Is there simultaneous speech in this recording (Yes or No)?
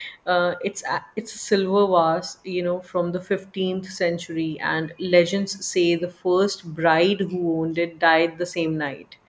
No